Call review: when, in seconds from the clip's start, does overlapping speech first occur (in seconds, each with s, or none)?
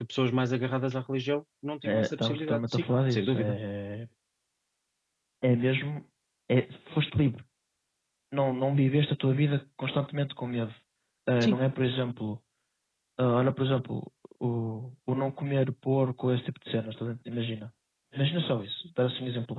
1.9 s